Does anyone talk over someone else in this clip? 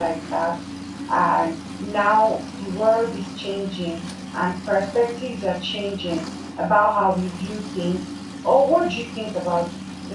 No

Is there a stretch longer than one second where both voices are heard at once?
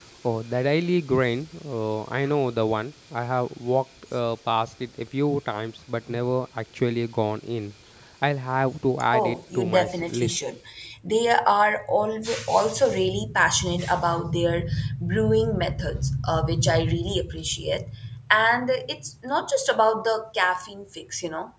Yes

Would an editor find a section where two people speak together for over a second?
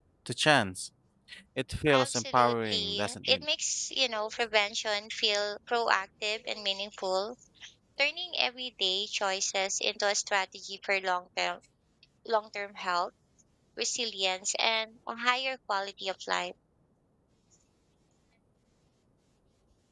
Yes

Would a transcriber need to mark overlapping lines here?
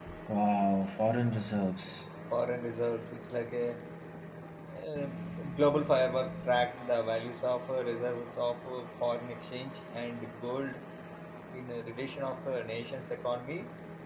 No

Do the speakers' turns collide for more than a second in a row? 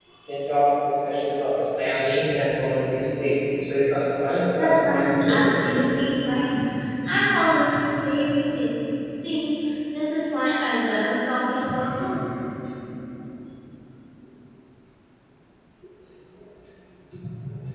Yes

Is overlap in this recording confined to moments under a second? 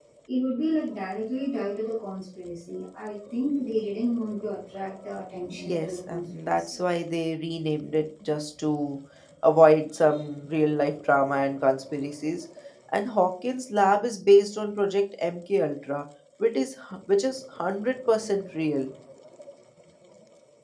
No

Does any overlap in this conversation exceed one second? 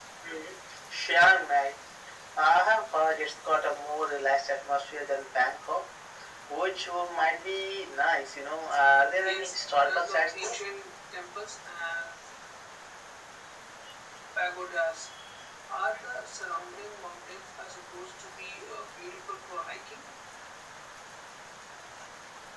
Yes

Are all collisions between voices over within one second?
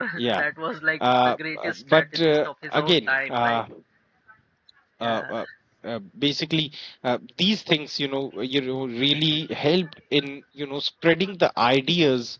No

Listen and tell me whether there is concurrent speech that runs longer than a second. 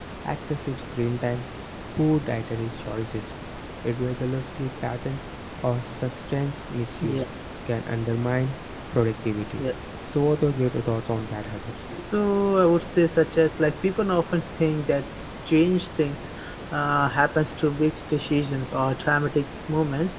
No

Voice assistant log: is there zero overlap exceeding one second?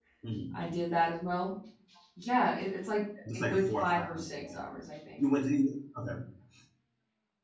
No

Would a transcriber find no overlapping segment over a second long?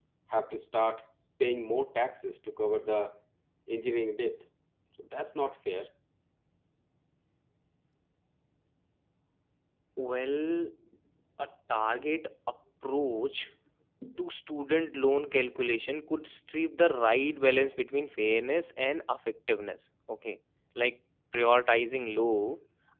Yes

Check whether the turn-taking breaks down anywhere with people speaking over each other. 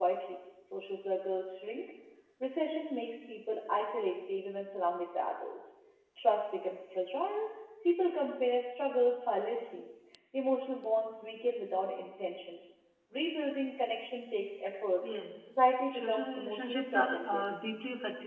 Yes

